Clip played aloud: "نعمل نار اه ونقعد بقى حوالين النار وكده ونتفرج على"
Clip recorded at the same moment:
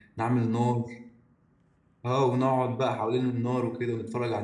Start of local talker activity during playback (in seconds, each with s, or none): none